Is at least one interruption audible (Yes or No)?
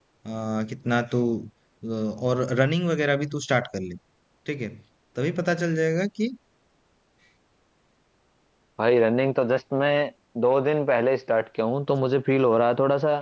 No